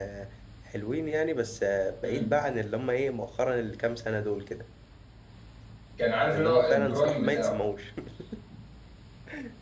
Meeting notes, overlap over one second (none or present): present